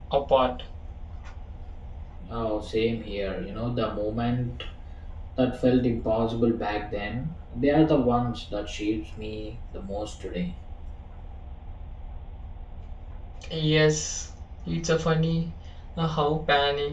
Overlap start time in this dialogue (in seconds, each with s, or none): none